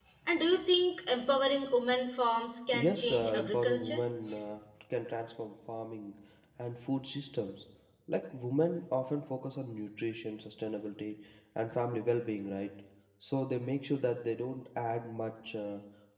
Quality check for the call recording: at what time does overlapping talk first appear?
2.7 s

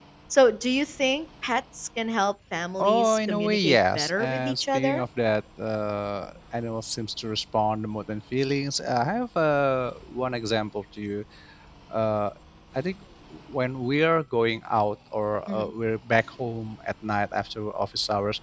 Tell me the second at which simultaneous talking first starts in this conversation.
2.8 s

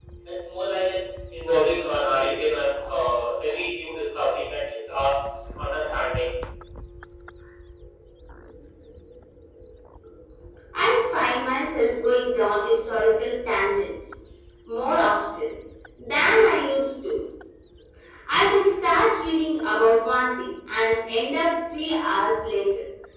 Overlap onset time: none

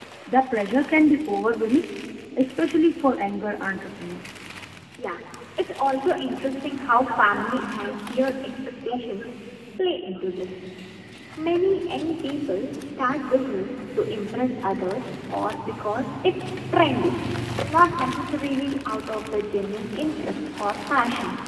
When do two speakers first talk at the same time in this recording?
none

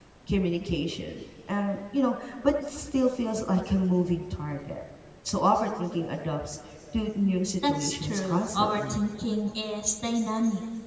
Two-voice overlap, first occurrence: 7.6 s

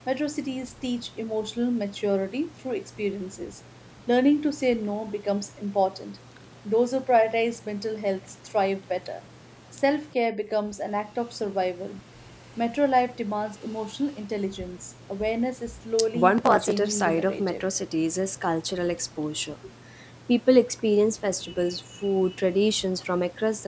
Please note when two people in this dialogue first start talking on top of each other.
16.1 s

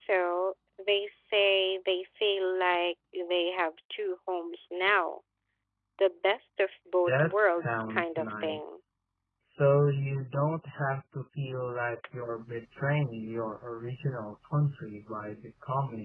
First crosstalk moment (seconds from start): 7.1 s

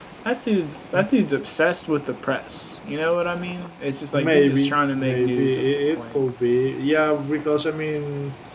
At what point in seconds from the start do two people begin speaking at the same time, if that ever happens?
4.1 s

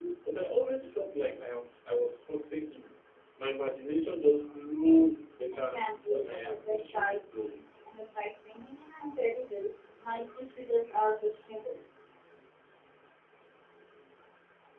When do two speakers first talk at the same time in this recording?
5.5 s

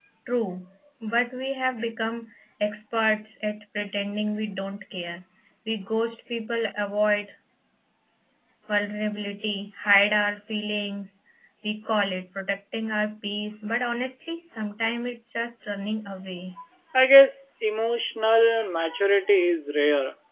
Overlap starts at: none

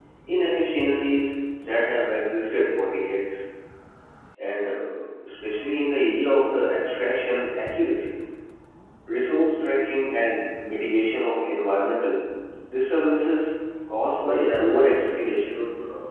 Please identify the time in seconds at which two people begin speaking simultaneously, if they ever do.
14.2 s

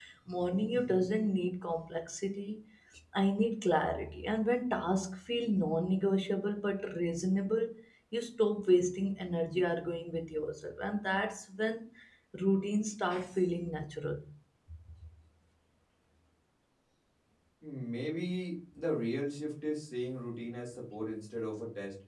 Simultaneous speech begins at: none

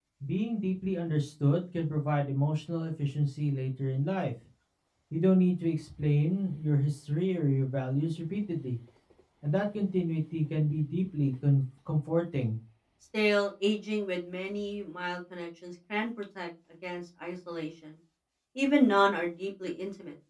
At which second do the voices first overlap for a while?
none

